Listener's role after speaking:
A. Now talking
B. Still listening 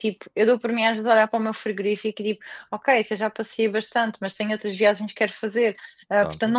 B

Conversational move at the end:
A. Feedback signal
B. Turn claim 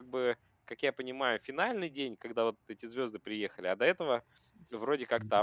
B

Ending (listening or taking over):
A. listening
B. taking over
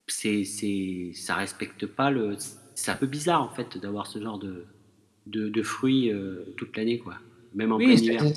B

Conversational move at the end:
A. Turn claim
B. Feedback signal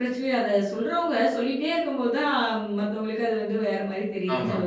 A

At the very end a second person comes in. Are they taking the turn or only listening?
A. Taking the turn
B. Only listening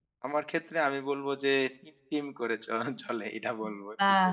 A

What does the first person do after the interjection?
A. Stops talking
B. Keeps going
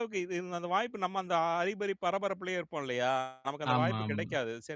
B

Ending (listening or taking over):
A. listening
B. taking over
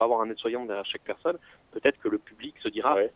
A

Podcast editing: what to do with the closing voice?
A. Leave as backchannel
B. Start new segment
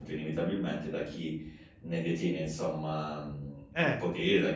A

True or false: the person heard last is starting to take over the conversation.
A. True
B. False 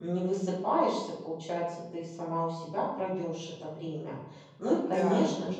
B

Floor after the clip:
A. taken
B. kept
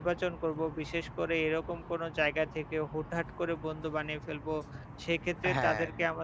B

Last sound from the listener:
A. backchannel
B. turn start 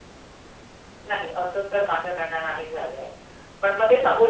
A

